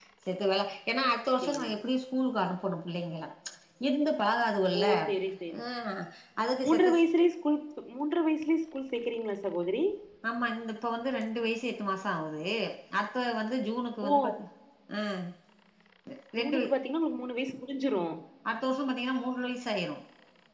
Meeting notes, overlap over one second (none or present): none